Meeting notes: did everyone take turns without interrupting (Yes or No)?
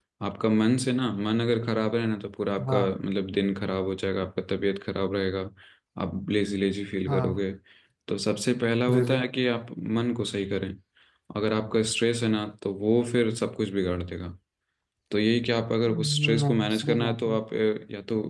No